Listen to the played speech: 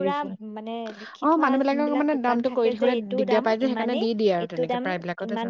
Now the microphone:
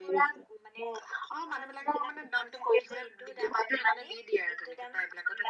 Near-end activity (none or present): none